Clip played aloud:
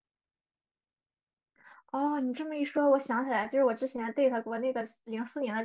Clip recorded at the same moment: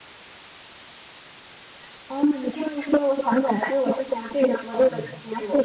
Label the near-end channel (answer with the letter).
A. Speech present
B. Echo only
A